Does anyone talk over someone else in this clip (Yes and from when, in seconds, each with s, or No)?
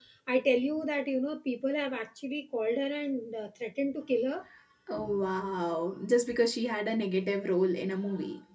No